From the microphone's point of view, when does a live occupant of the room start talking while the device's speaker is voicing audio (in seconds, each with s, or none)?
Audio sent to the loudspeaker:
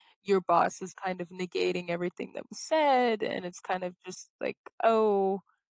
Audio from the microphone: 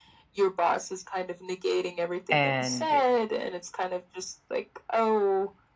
2.3 s